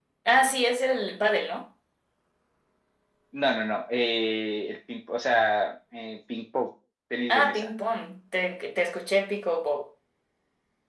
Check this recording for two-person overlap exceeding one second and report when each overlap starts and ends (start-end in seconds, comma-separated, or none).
none